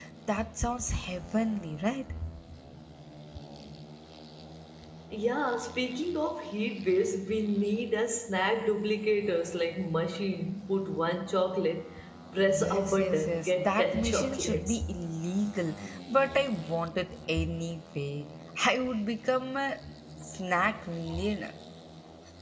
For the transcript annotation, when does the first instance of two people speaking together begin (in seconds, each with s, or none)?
12.6 s